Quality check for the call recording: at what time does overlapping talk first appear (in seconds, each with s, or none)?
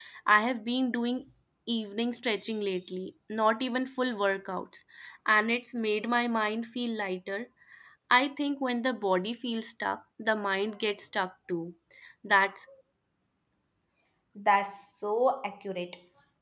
none